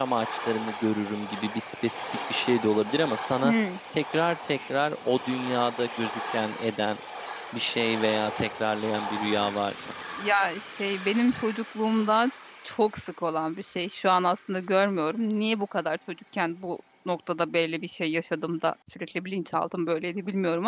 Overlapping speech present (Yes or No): No